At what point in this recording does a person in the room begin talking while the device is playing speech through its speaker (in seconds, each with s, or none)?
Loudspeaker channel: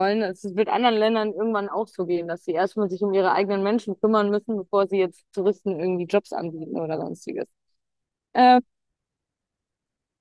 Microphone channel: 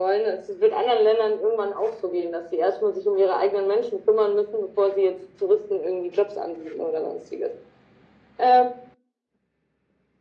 none